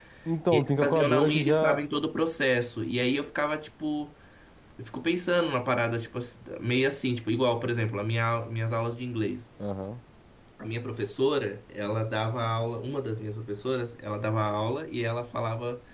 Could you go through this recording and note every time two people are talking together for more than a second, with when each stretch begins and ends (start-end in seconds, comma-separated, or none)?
0.5-1.8